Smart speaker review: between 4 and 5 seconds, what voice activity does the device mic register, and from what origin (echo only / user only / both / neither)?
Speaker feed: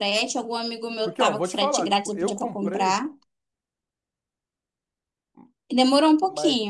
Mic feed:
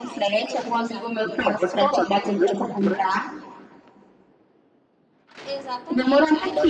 neither